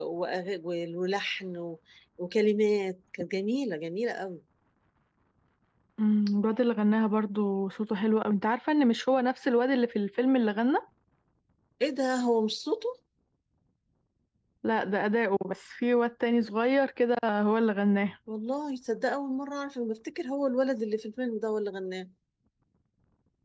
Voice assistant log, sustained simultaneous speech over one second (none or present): none